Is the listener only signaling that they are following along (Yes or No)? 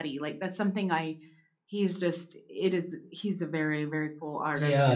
No